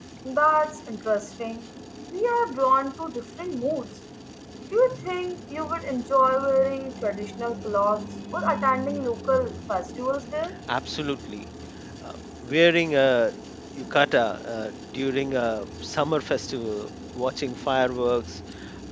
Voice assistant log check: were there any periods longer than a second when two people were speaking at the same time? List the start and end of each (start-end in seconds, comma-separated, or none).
none